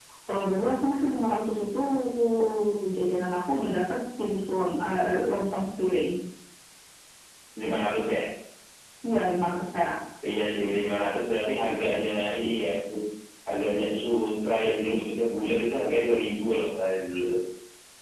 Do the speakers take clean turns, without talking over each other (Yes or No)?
Yes